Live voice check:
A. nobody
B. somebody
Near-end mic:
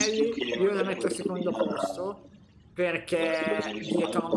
B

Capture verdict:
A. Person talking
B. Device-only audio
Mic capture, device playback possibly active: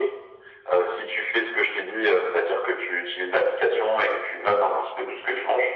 B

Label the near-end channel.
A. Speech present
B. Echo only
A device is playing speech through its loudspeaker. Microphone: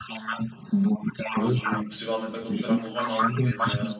A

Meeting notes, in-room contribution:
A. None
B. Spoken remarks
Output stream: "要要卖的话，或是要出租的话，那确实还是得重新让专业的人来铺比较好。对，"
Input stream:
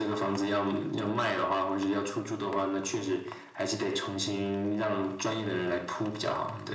A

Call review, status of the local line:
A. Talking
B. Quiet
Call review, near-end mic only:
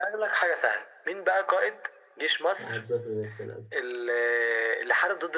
A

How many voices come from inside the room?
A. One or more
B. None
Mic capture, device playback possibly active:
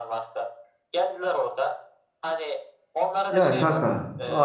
A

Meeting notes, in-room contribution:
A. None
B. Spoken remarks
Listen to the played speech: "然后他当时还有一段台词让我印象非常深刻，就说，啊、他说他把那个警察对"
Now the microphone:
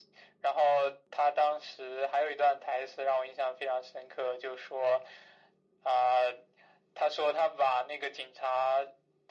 A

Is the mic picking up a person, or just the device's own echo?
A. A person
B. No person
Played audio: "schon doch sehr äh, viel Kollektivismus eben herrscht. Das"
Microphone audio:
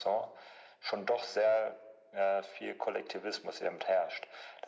B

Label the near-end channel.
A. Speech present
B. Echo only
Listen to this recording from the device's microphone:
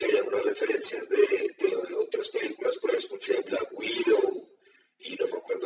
B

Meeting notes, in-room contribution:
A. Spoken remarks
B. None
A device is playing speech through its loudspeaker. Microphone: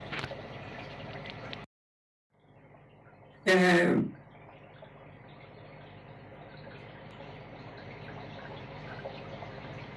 A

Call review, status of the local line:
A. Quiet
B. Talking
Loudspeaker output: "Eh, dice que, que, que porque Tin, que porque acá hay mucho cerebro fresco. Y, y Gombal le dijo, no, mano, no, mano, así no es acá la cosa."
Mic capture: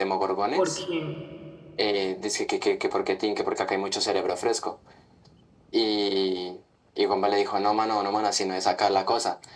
B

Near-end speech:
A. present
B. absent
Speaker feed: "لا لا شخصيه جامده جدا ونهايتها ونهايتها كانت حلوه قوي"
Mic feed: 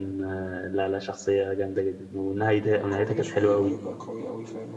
A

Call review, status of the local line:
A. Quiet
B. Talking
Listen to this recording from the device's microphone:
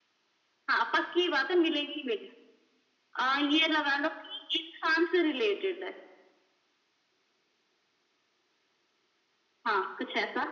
A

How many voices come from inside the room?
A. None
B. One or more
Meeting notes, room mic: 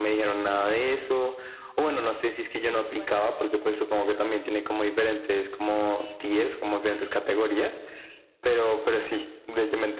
B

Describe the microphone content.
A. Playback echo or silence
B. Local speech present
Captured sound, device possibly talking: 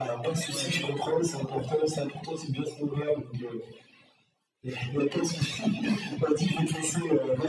B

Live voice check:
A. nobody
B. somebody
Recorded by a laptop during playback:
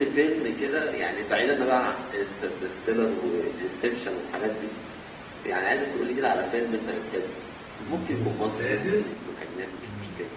B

